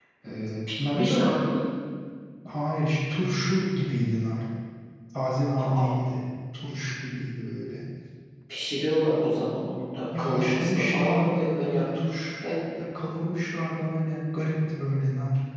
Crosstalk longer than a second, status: present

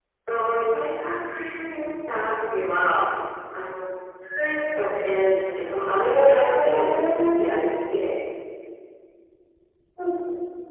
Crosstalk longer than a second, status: present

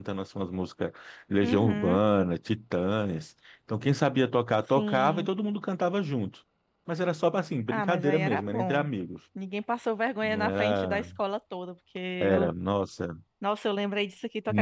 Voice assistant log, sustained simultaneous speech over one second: present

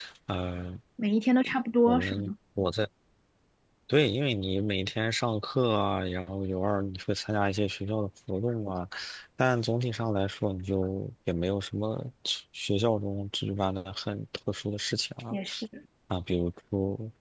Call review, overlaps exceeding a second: none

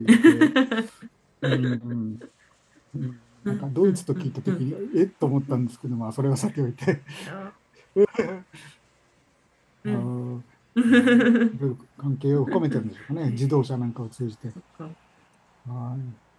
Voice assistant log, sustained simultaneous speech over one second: present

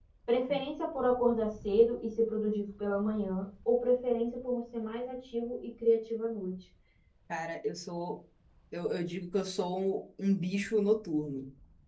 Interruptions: none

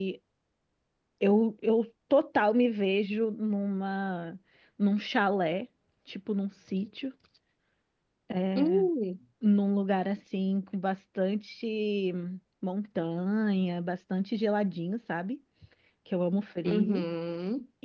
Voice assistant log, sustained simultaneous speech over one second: none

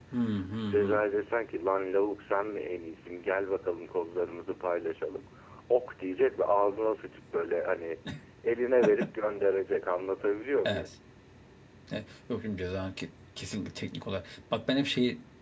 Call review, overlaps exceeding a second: none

